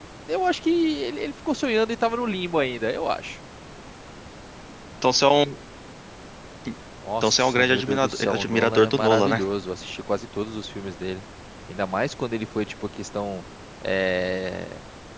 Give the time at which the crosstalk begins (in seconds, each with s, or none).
7.2 s